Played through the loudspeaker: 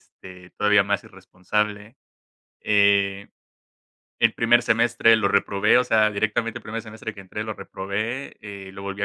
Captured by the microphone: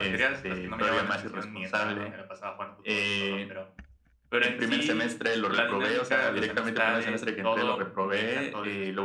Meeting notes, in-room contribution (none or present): present